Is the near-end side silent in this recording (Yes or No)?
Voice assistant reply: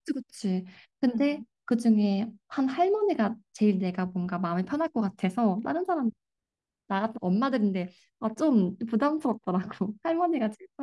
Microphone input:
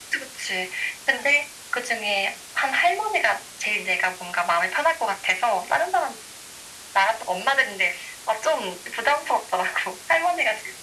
Yes